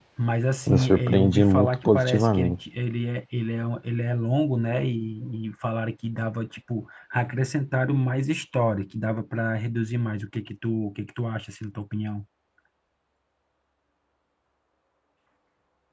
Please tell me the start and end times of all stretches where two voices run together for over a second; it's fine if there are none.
0.7-2.6

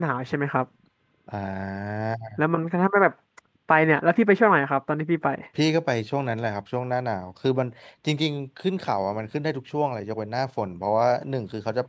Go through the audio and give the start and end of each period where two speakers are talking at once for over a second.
none

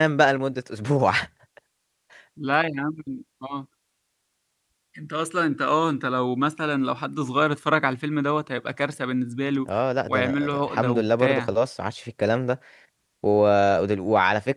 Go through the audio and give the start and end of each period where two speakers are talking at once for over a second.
10.1-11.5

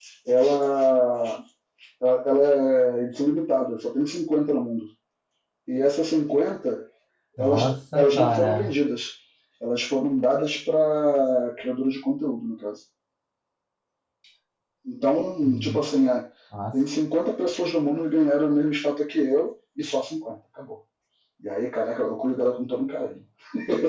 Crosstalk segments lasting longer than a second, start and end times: 7.4-8.7

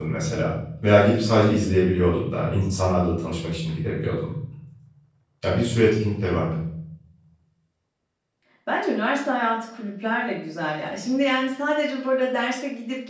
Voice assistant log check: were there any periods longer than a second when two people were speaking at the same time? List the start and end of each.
none

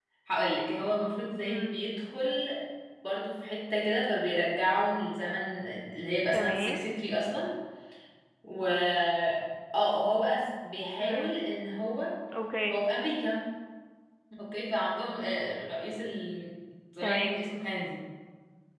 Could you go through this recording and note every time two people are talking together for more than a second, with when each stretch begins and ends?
none

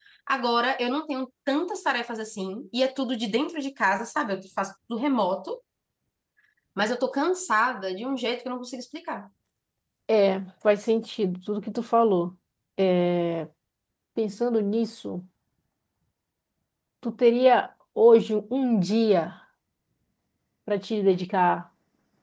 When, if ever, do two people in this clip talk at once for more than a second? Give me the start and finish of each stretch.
none

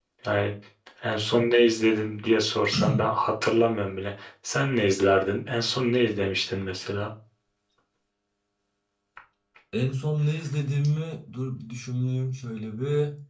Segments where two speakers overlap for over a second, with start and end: none

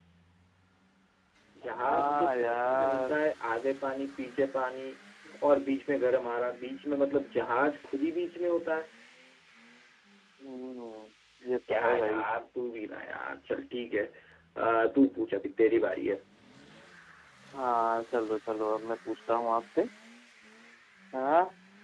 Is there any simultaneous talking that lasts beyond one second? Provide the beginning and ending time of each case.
1.8-3.2

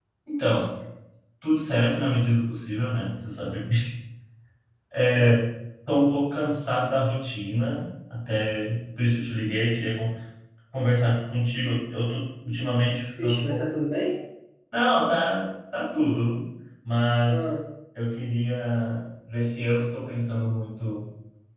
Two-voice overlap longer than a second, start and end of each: none

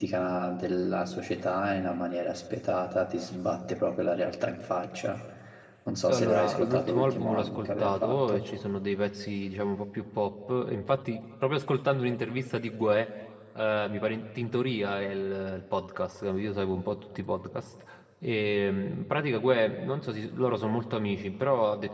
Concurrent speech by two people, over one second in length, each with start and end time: 6.1-8.4

